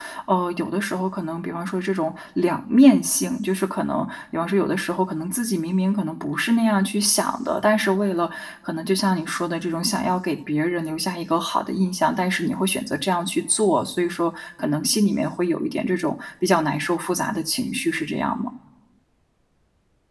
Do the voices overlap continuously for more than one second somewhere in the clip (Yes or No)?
No